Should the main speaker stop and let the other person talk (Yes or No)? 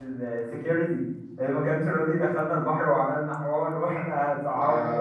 Yes